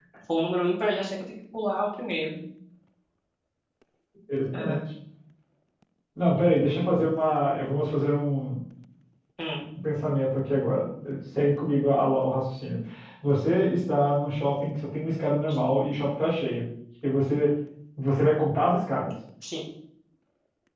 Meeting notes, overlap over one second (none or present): none